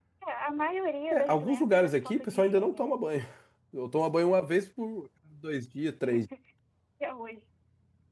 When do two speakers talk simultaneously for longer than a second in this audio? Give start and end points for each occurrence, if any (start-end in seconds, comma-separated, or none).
1.1-3.0